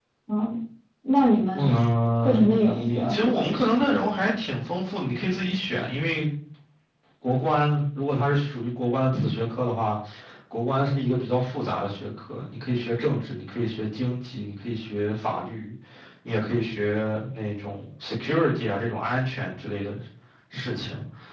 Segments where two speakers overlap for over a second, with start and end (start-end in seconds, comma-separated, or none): 2.2-4.0